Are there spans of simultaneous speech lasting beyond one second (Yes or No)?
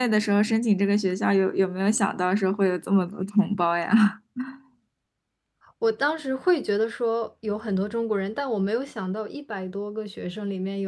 No